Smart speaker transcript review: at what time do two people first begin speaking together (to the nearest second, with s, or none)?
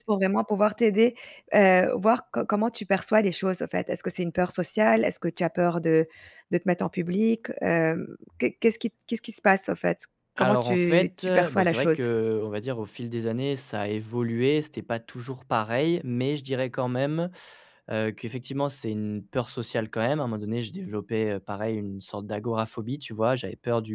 10 s